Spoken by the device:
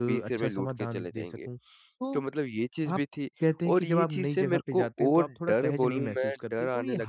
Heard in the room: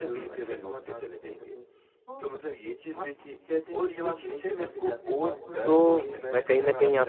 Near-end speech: present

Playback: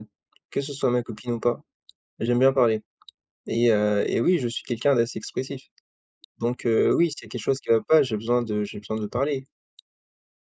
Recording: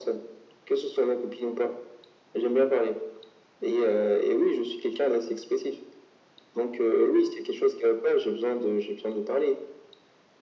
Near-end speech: none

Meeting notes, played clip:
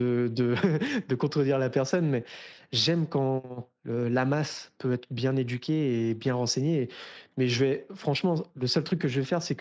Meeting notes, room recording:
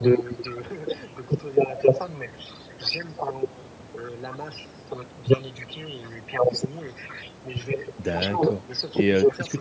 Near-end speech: present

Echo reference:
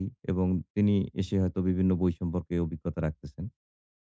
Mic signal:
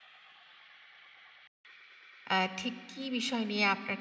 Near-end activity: present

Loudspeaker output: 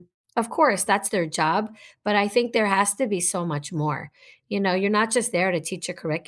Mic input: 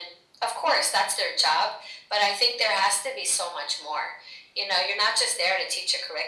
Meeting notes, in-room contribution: none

